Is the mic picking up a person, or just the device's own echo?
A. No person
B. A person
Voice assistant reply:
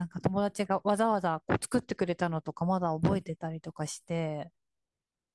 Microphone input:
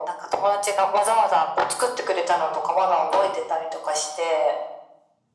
A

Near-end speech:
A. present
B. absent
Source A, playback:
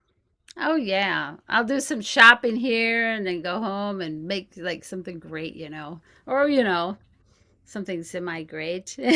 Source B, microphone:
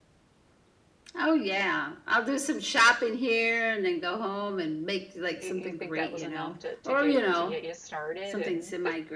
A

